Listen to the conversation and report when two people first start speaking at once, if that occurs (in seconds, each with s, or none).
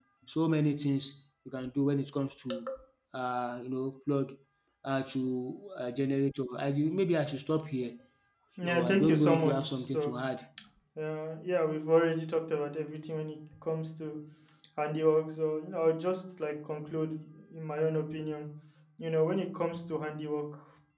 8.6 s